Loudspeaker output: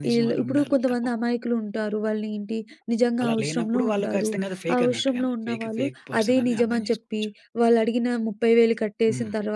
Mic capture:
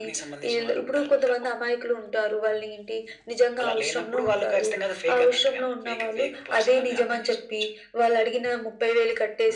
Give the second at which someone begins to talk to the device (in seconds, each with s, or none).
none